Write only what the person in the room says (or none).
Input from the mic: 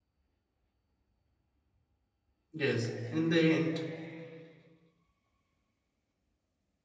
Yes, in the end,